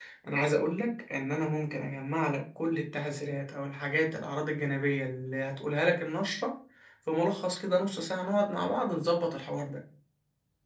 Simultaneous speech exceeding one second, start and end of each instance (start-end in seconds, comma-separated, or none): none